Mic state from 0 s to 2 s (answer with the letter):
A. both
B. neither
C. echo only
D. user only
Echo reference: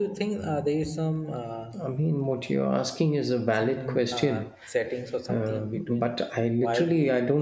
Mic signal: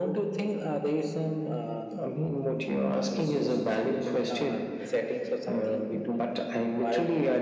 C